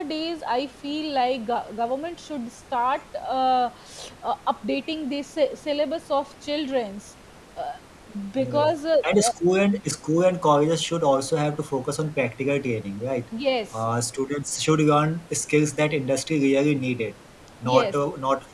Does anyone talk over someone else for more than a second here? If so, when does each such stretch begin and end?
none

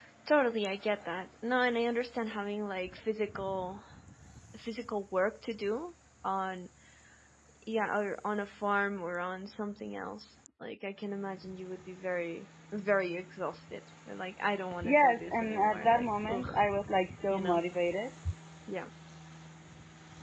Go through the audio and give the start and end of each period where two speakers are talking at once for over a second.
14.8-16.5

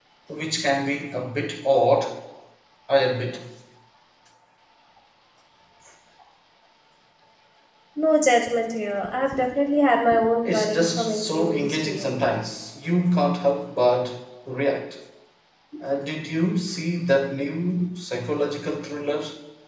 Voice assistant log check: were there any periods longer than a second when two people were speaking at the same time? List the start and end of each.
10.4-12.2

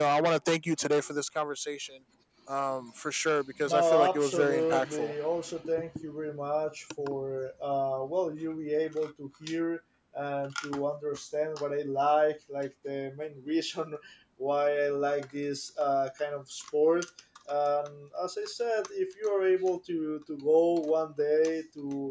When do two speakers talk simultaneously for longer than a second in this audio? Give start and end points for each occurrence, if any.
3.7-5.1

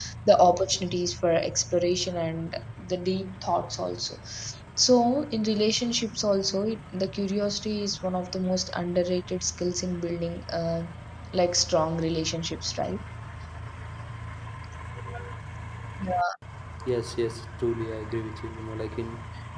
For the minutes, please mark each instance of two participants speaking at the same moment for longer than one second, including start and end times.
none

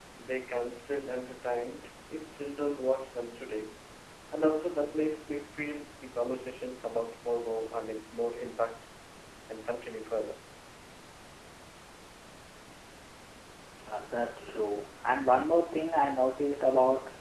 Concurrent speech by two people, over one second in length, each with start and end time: none

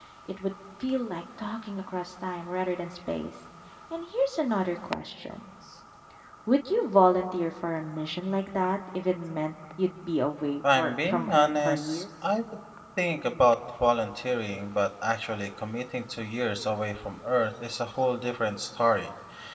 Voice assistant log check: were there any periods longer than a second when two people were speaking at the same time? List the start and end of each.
10.8-12.0

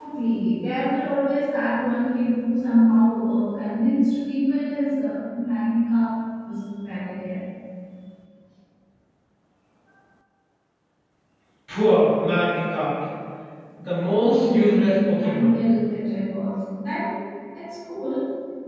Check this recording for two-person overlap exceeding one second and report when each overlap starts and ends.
14.2-15.6

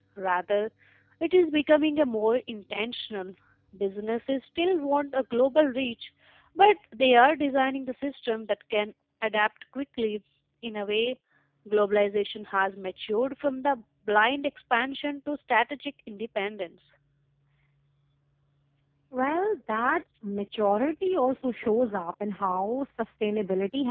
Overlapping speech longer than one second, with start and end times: none

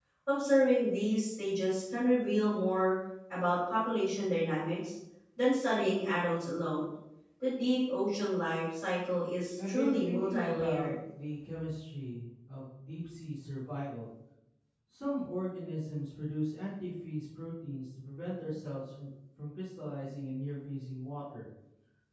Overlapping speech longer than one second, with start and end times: 9.7-10.9

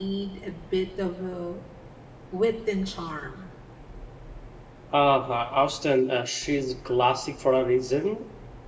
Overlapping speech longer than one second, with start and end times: none

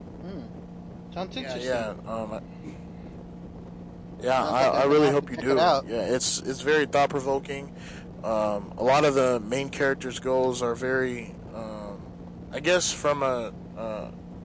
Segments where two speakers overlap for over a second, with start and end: 4.4-5.8

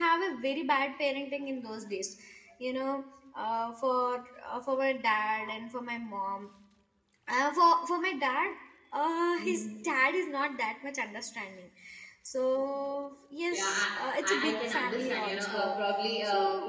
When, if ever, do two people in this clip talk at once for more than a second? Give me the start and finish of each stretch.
13.5-15.8

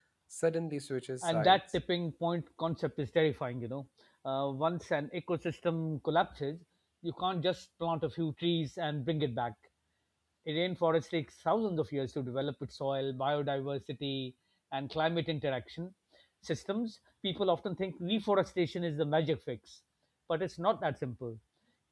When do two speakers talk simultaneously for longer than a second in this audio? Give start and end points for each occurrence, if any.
none

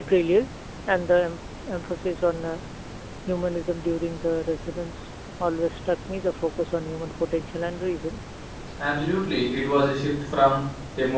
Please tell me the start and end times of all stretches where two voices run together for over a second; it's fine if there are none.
none

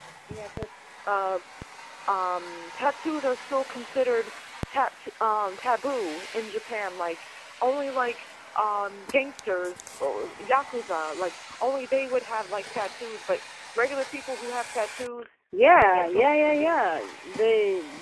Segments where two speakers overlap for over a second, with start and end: 15.6-17.0

